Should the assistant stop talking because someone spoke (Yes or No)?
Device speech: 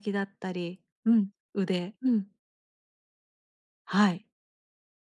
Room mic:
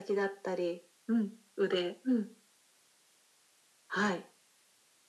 No